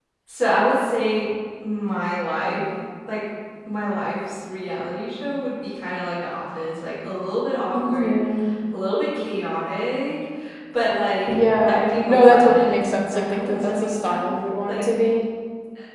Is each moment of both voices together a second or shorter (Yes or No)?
No